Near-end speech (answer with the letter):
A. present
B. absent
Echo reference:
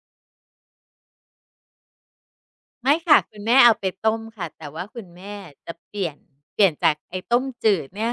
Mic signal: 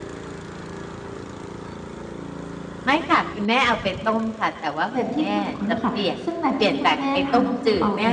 A